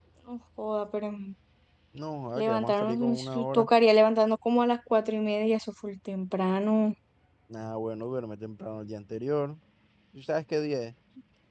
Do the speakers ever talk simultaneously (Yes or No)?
Yes